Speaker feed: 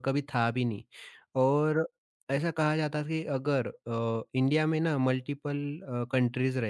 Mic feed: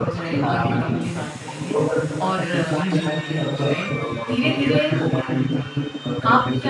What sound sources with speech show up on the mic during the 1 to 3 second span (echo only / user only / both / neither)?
both